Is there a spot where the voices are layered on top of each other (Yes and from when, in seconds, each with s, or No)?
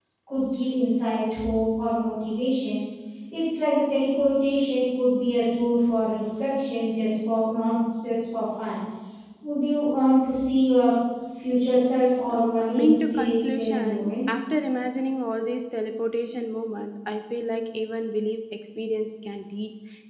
Yes, from 12.3 s